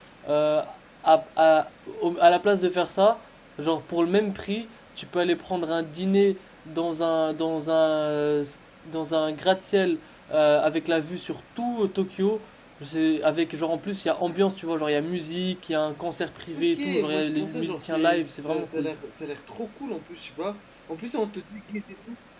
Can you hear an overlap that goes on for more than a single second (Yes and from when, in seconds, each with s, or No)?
Yes, from 16.5 s